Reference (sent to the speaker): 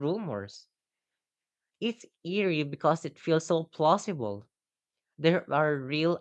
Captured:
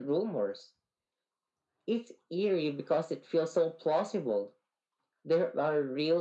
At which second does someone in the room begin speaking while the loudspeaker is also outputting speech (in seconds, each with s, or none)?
none